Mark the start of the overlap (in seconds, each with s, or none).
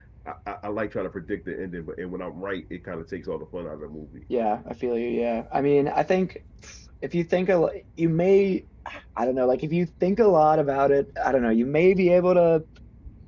none